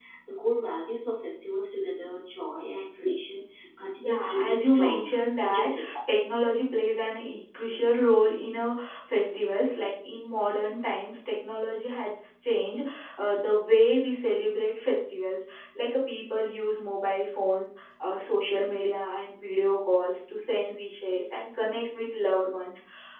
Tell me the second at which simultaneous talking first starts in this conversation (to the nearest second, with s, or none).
4 s